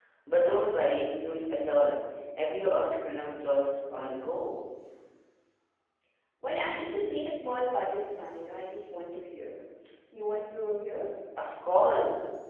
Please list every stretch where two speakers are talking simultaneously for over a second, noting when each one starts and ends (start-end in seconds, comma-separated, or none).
none